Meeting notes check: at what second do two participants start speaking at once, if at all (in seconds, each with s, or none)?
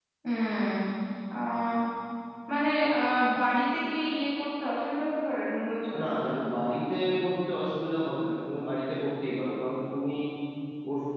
none